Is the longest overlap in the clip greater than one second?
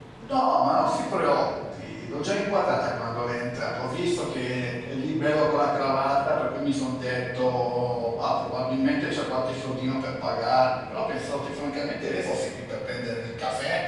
No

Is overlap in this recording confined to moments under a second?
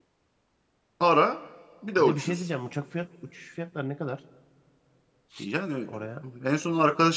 Yes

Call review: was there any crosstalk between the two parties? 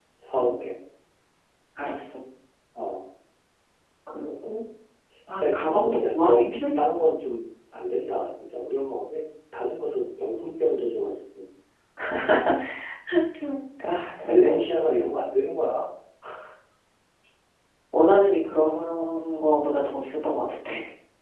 Yes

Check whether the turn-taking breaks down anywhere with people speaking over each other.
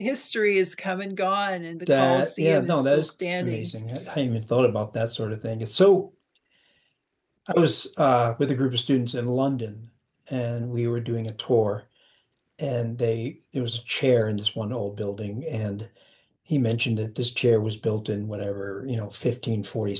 Yes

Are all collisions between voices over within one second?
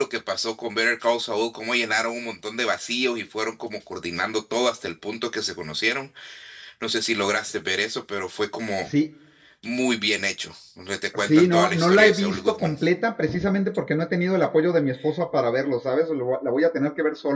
No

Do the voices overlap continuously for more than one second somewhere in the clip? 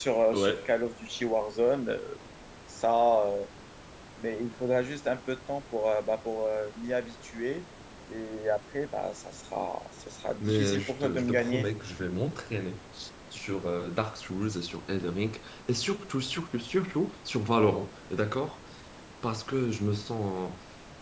Yes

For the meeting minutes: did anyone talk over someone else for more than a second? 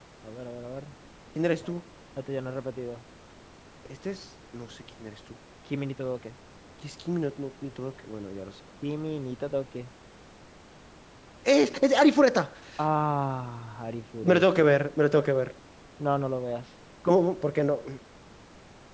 No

